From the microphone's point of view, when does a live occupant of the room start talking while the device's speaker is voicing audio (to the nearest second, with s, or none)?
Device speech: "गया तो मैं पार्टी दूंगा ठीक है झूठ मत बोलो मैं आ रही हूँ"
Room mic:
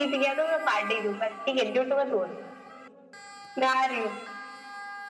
none